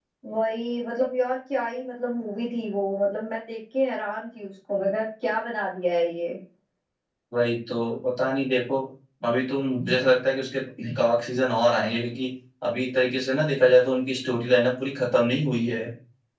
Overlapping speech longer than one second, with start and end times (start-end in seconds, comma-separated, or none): none